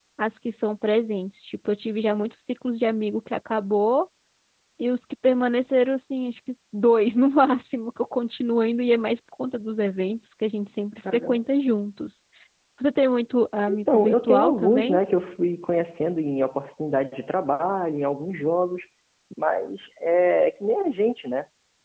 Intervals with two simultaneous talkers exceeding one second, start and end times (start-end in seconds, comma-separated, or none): 13.7-15.0